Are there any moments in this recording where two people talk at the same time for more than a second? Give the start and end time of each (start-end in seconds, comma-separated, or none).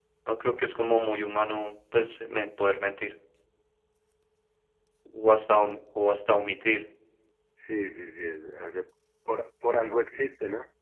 none